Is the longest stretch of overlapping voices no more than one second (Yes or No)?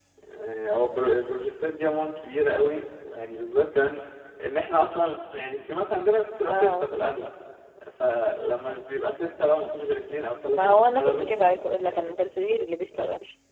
No